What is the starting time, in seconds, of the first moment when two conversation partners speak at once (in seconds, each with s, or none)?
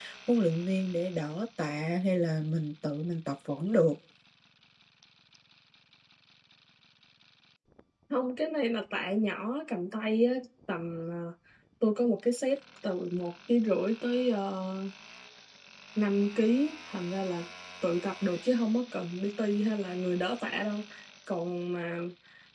none